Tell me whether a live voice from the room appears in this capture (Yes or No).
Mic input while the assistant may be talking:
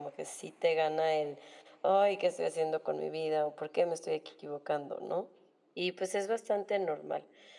Yes